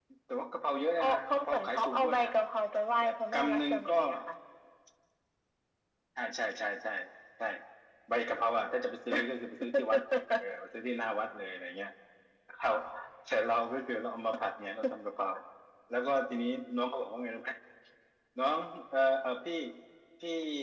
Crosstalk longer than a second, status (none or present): present